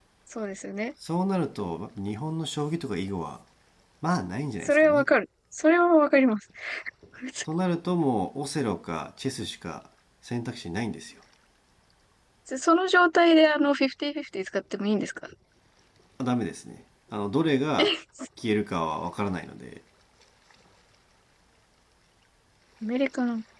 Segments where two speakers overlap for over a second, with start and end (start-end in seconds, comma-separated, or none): none